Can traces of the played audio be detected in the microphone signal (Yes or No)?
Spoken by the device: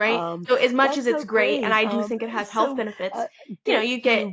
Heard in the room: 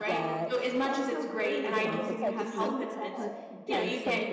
Yes